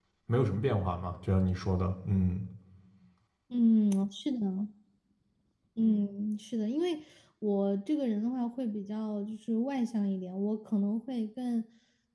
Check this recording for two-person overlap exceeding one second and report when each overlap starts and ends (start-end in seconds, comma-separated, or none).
none